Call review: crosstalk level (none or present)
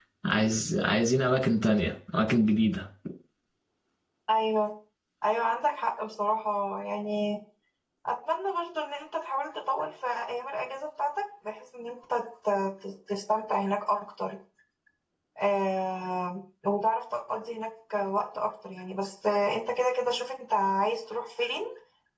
none